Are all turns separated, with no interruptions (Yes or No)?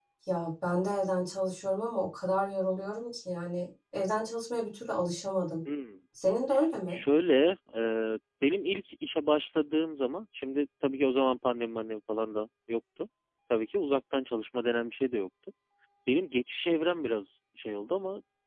Yes